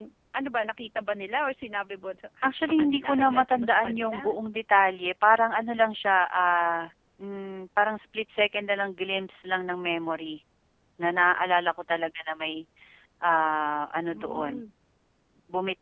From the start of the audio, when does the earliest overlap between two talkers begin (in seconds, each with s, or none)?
2.4 s